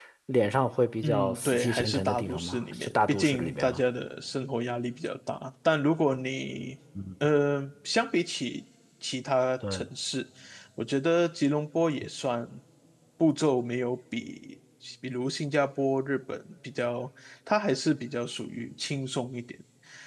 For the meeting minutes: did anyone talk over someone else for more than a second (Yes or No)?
Yes